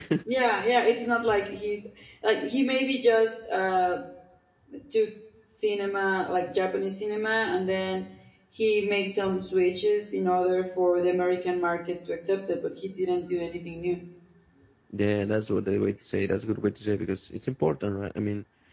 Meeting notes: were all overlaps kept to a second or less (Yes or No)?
Yes